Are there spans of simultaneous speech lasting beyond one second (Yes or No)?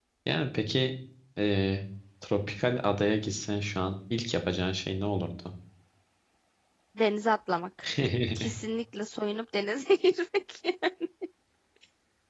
No